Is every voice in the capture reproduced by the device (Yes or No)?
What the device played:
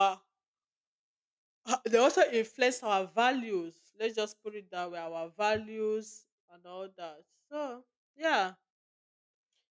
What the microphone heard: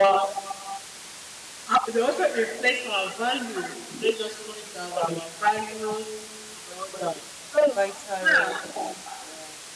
No